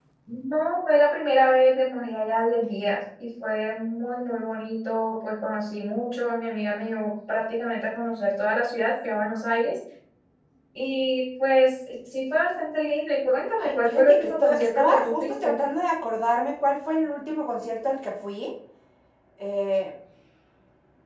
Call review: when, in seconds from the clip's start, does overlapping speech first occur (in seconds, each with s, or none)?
13.6 s